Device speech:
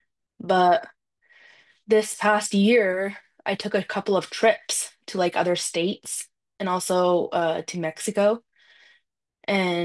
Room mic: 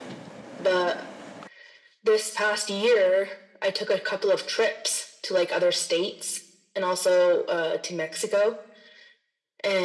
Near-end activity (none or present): none